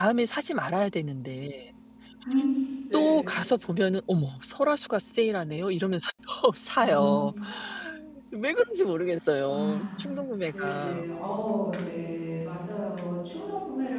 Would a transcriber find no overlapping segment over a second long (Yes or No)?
Yes